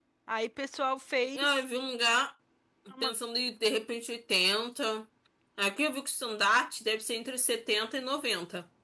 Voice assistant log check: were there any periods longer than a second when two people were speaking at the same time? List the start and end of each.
none

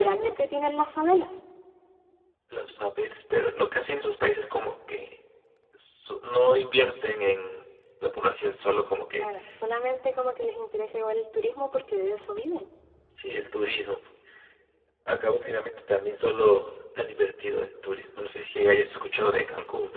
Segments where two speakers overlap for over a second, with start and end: none

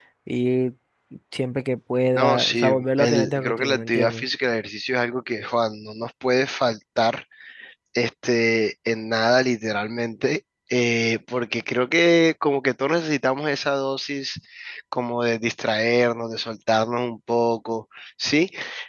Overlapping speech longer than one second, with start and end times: 2.1-4.2

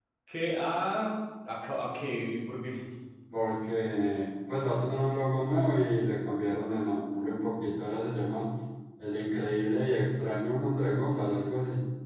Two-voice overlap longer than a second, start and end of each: none

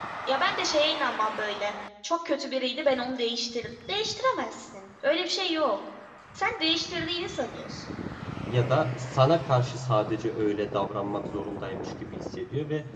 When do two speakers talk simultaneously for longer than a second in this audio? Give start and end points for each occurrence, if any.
none

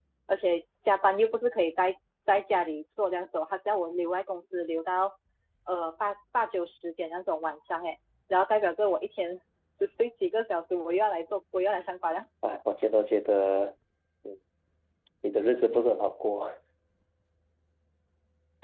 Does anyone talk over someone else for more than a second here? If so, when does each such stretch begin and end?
none

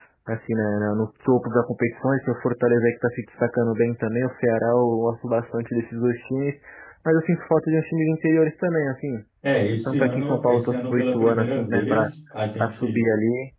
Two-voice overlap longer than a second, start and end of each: 9.9-12.1

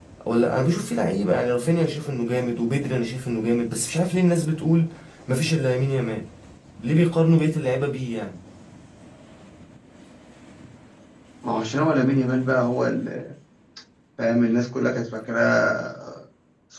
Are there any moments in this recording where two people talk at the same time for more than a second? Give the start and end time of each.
none

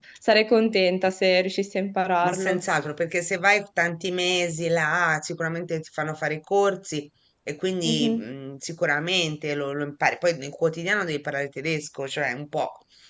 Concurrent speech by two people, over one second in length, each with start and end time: none

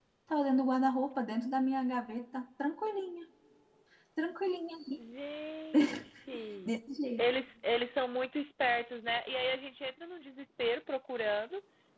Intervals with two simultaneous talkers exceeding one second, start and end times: none

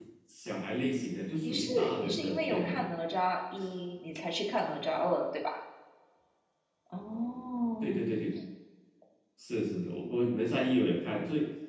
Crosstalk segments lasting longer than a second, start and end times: 1.4-3.0

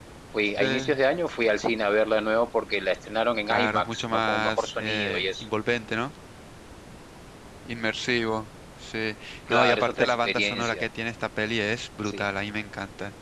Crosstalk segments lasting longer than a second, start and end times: 3.5-5.4, 9.5-10.8

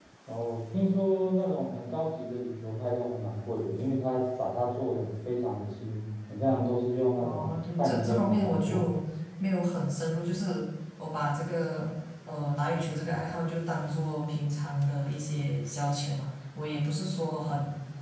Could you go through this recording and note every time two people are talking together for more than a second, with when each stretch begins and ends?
7.2-8.8

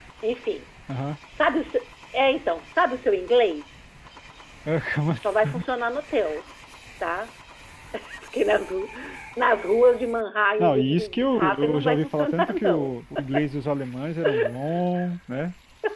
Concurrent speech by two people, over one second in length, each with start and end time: 10.6-12.9

